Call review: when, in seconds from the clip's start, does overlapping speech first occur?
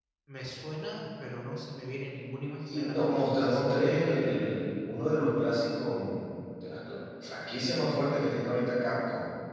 2.6 s

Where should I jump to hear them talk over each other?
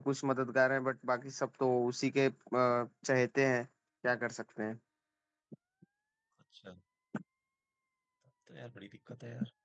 none

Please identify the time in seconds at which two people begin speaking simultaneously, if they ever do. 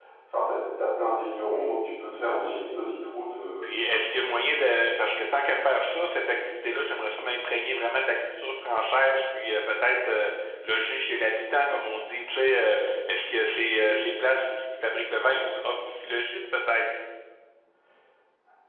none

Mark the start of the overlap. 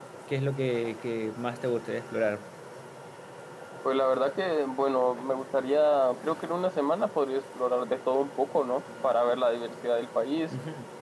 none

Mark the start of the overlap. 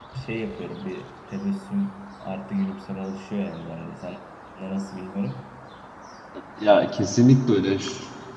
none

